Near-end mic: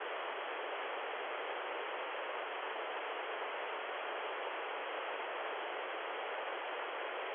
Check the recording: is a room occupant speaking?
No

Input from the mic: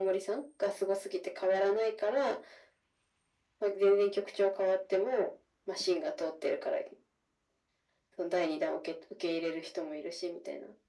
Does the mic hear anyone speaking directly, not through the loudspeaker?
No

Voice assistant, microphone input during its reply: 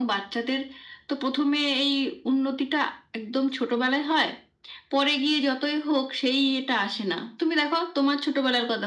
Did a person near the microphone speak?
No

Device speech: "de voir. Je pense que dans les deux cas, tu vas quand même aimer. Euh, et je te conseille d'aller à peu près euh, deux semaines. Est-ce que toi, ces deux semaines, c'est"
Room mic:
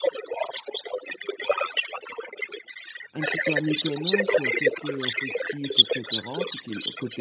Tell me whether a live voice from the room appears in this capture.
Yes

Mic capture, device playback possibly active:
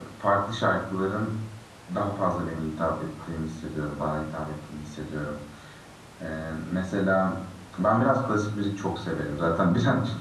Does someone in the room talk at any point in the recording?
Yes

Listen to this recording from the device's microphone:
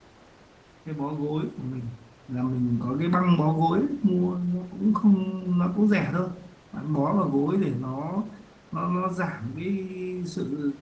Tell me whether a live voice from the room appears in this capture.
Yes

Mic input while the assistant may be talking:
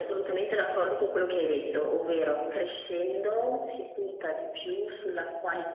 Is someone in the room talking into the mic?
No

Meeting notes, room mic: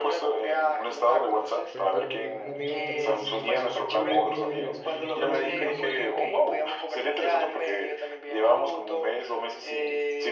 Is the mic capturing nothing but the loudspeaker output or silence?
No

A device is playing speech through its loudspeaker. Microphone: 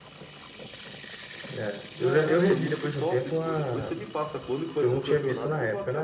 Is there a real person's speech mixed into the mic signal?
Yes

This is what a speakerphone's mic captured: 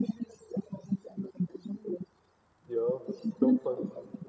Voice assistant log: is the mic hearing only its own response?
No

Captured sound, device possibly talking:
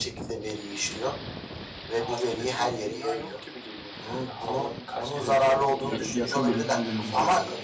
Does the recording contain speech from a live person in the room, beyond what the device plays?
Yes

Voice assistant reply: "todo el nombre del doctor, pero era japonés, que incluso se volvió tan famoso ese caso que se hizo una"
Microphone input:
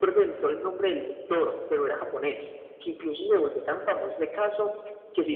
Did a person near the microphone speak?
No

